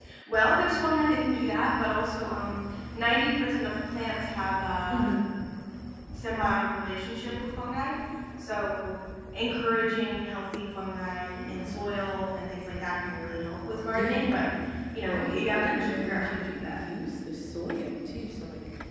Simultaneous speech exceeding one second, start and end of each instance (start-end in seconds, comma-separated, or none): 15.0-16.8